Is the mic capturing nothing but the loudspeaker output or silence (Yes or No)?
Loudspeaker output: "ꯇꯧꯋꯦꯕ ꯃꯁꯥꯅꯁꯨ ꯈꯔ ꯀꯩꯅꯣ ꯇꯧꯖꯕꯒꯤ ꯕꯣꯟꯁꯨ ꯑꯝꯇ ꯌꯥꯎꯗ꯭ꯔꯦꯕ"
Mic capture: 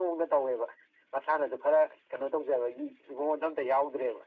Yes